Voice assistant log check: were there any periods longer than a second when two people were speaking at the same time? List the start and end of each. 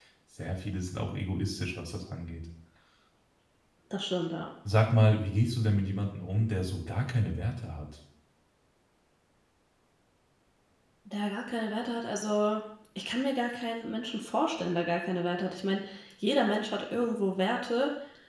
none

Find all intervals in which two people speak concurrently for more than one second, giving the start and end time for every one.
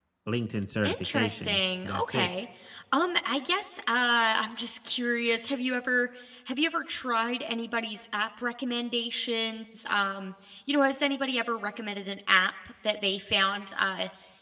0.8-2.3

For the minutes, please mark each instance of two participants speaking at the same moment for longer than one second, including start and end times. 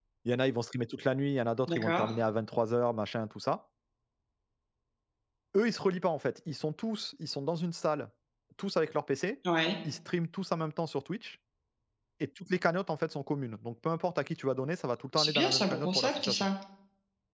15.2-16.5

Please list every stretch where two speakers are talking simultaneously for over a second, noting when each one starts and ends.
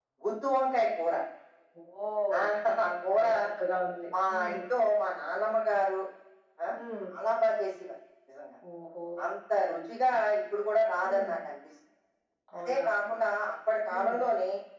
none

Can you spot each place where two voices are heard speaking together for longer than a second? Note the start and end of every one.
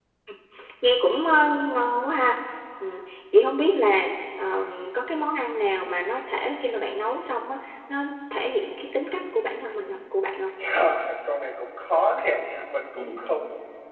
none

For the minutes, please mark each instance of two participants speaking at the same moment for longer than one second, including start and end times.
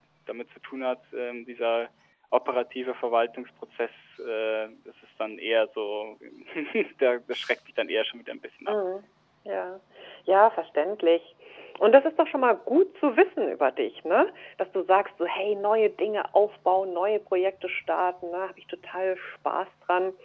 none

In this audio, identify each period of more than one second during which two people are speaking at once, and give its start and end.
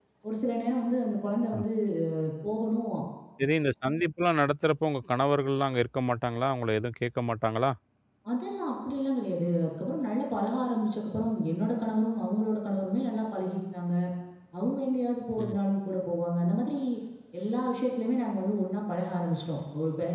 none

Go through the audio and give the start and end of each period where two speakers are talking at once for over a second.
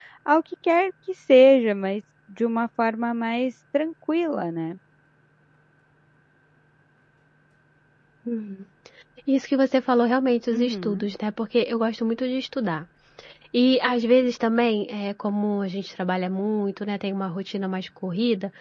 none

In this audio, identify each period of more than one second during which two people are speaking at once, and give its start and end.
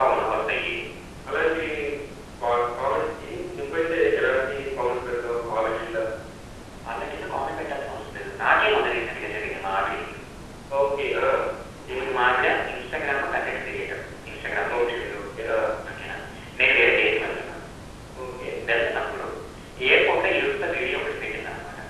none

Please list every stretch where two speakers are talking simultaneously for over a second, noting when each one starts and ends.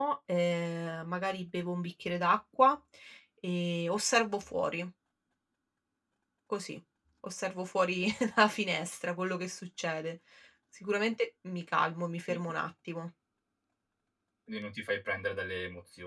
none

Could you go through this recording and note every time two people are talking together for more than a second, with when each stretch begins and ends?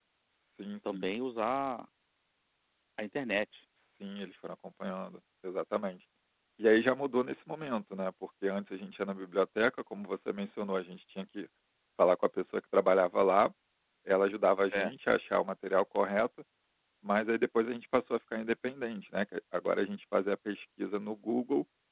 none

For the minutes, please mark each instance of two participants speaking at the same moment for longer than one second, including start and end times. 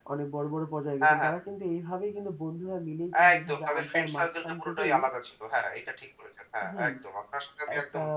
3.2-5.0

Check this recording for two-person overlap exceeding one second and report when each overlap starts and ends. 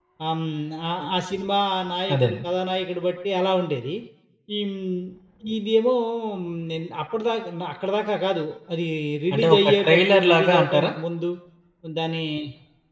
9.3-10.9

